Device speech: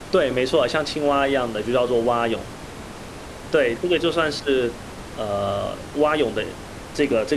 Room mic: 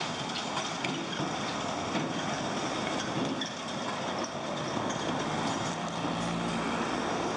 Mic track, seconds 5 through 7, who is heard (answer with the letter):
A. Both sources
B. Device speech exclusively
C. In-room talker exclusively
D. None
D